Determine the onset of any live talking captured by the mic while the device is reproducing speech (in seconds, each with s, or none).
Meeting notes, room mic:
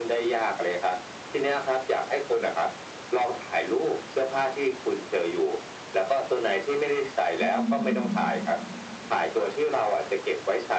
7.4 s